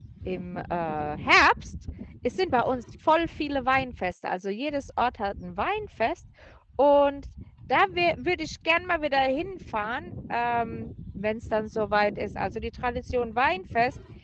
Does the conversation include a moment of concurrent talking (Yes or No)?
No